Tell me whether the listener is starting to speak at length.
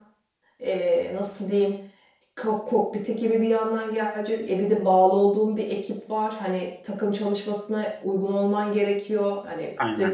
No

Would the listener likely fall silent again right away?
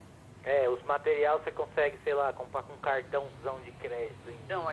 No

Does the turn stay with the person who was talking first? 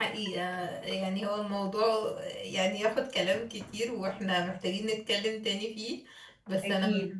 Yes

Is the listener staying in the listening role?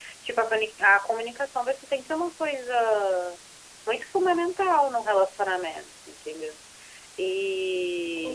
Yes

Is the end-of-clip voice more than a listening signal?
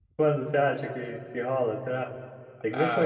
Yes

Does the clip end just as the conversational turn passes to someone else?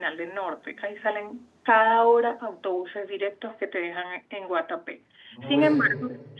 No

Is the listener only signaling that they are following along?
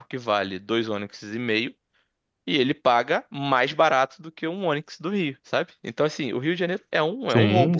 No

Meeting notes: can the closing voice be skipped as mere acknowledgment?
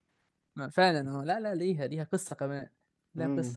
No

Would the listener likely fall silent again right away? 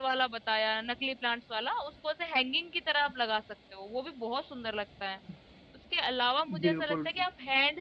Yes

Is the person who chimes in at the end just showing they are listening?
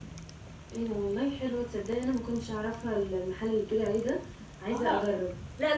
No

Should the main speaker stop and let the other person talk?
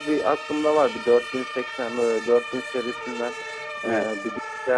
No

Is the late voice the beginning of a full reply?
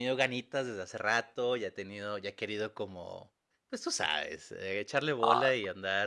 No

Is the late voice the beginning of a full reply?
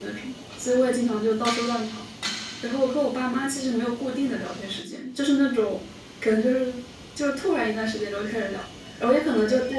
No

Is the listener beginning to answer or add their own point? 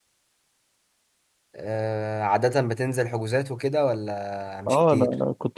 Yes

